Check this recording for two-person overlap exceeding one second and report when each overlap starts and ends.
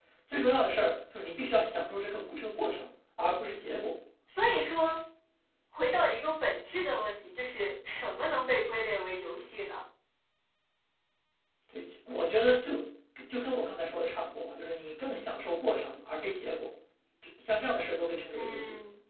none

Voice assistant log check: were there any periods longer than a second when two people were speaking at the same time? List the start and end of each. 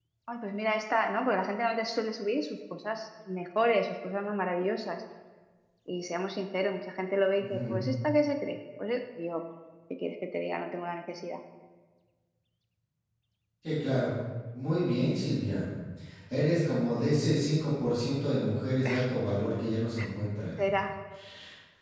none

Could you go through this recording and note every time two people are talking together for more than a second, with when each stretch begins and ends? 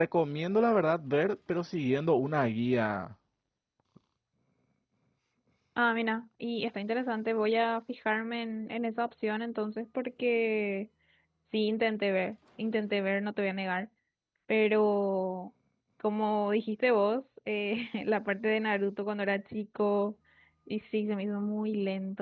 none

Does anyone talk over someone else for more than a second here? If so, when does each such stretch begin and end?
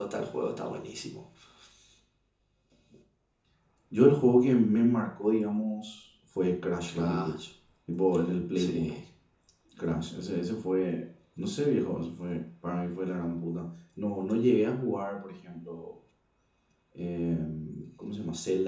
none

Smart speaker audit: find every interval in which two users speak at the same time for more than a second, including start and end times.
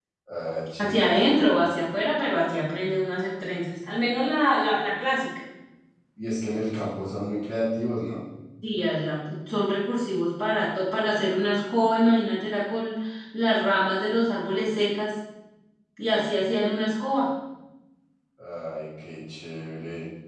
none

